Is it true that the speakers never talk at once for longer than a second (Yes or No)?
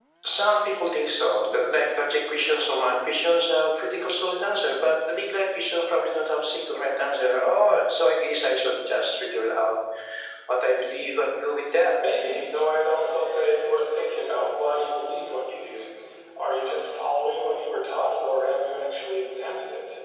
Yes